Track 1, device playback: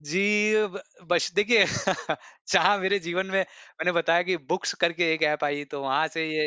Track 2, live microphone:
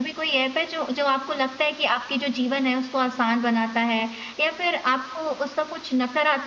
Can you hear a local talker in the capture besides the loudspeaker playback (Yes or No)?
Yes